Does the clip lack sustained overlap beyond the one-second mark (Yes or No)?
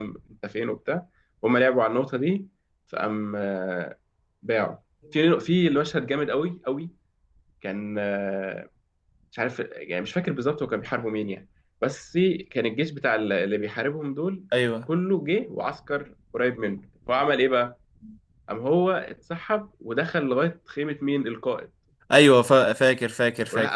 Yes